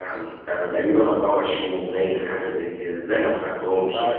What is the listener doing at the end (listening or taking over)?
taking over